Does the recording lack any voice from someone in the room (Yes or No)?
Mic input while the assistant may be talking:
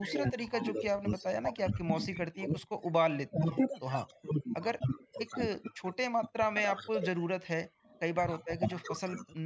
No